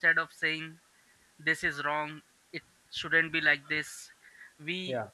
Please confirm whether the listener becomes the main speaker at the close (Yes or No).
No